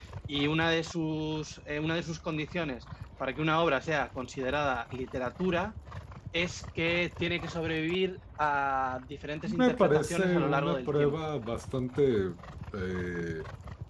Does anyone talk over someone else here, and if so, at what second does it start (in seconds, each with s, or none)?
9.4 s